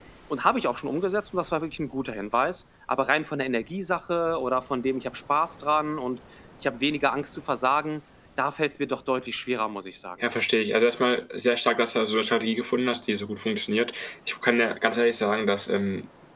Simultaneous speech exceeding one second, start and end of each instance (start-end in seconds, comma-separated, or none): none